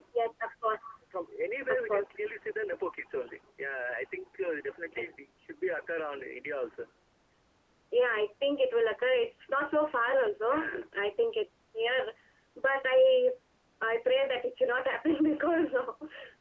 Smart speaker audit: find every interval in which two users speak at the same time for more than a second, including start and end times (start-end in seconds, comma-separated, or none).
none